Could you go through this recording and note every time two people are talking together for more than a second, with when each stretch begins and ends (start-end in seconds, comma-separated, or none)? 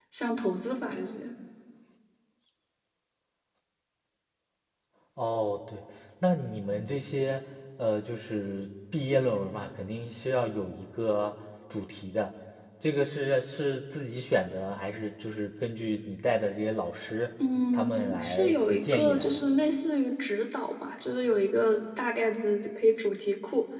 17.7-19.4